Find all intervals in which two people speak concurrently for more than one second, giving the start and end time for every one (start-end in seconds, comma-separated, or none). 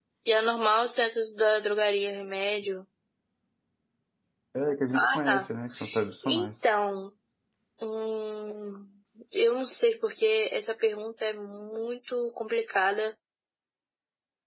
none